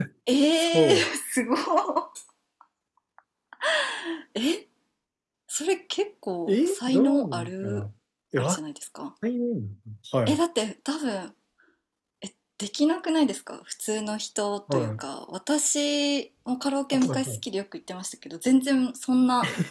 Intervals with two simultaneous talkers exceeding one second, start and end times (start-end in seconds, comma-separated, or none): 6.5-7.8